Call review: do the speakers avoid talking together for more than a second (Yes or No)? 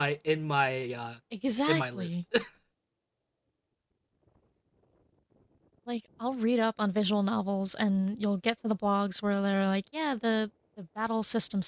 Yes